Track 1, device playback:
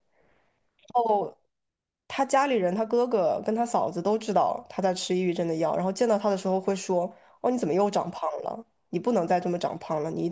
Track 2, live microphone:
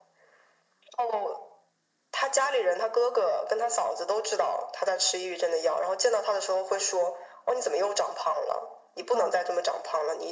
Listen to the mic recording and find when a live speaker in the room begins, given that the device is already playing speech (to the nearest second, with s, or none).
9 s